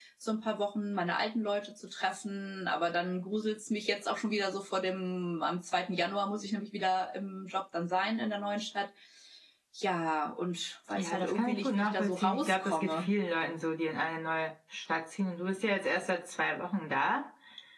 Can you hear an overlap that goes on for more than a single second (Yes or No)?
Yes